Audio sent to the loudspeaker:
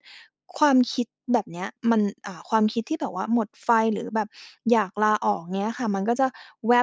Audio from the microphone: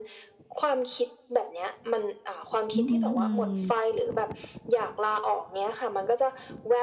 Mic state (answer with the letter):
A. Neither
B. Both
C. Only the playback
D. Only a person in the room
B